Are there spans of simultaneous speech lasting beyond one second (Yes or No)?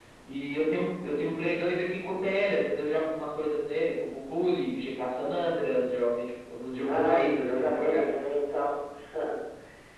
Yes